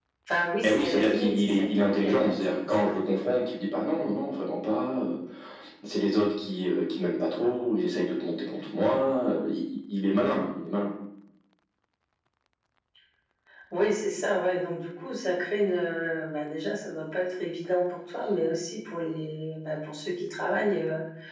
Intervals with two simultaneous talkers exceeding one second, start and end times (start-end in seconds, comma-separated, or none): 0.6-2.9